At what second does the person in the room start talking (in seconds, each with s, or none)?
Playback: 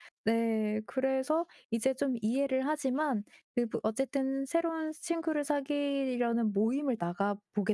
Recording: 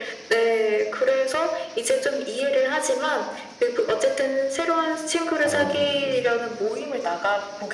5.4 s